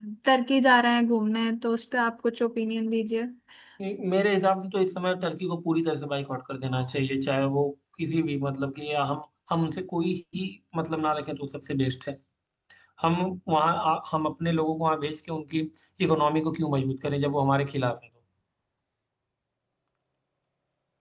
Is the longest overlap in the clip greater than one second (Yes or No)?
No